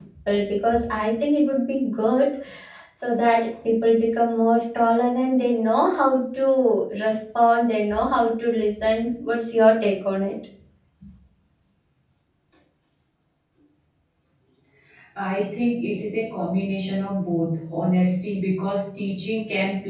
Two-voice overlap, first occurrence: none

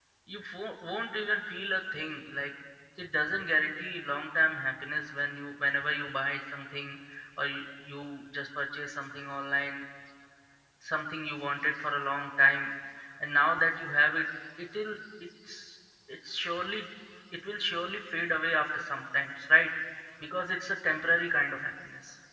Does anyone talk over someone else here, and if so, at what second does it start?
none

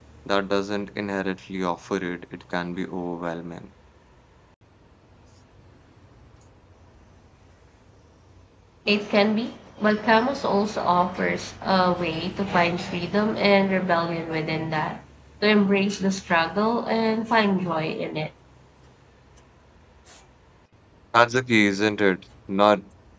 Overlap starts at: none

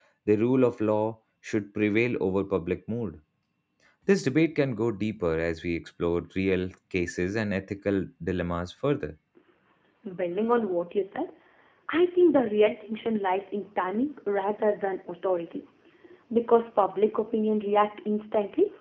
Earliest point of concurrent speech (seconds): none

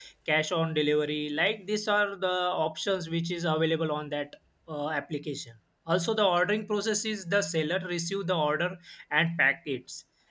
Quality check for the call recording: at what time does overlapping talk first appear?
none

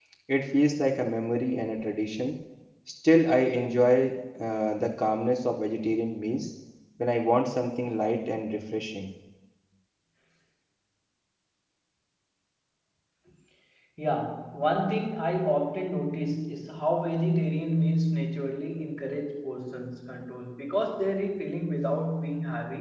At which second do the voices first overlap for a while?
none

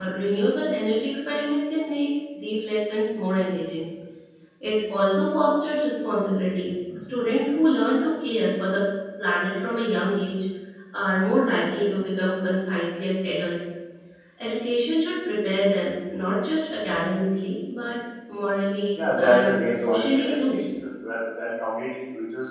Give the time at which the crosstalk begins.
19.0 s

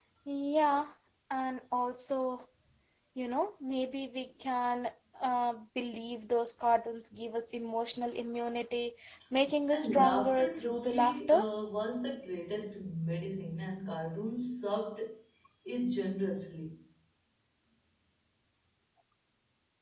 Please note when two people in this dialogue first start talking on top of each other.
9.7 s

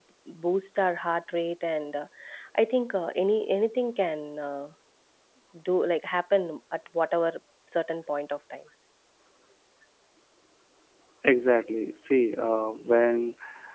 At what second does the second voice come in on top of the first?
none

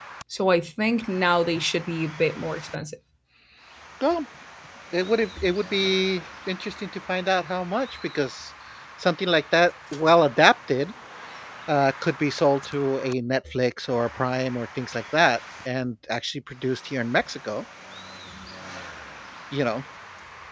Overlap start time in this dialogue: none

